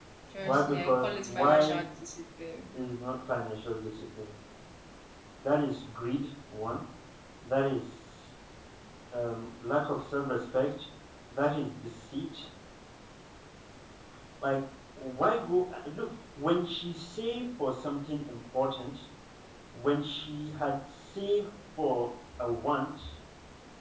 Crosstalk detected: Yes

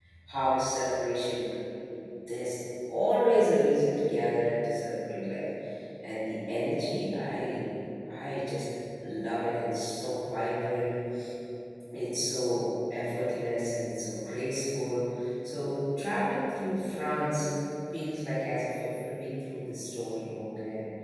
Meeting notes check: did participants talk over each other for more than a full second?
No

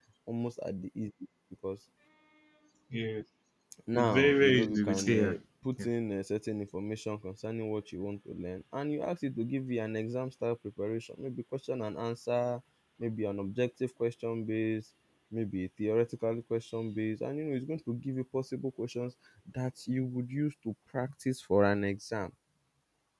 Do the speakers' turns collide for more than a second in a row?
Yes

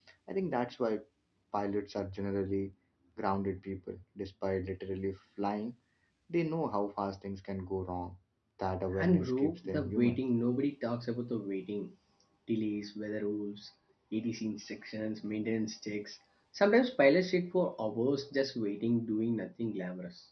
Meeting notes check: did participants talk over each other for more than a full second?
Yes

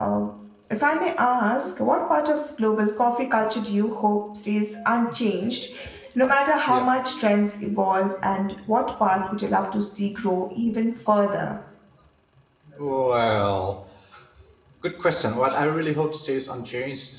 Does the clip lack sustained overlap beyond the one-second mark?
Yes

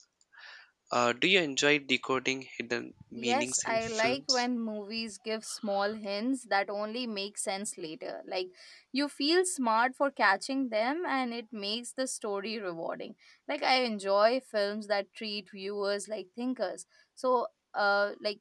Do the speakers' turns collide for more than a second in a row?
Yes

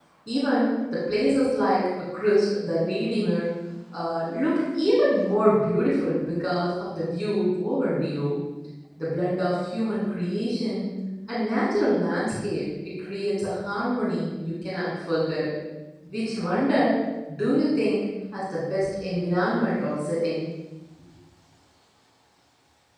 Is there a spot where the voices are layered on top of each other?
No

